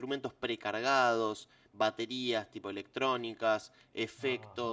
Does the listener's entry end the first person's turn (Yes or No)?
No